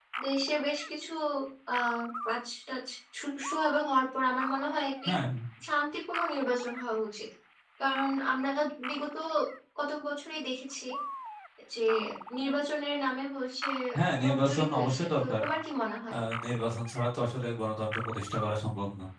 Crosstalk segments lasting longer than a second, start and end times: 14.2-15.4

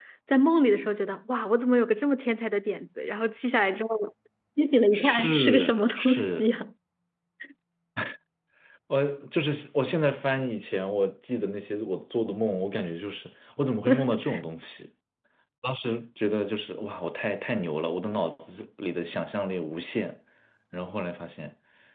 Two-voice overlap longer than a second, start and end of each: 4.9-6.5

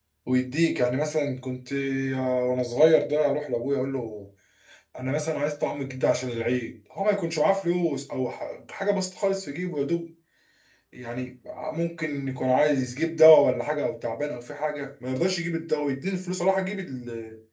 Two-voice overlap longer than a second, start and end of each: none

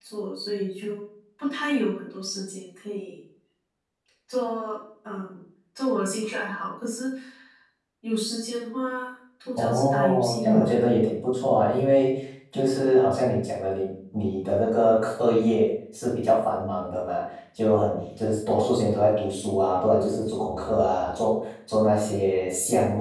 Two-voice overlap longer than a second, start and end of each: 9.6-10.8

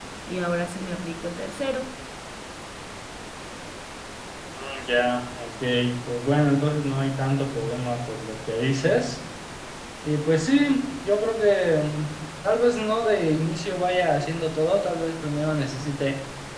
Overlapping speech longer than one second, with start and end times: none

